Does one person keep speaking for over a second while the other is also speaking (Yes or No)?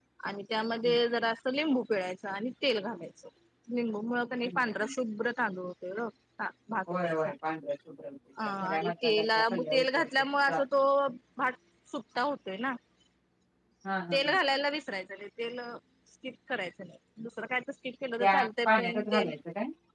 Yes